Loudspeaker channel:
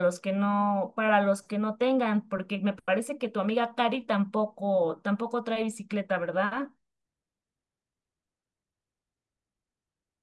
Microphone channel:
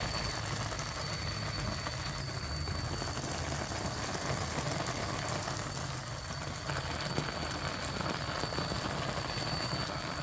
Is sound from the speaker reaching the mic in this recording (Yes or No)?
No